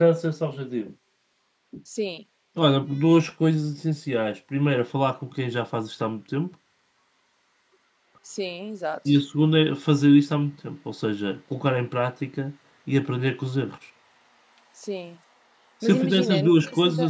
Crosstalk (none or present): present